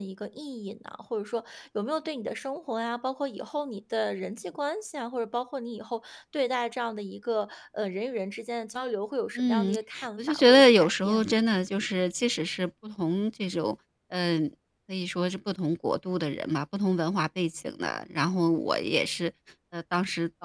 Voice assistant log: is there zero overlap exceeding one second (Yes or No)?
No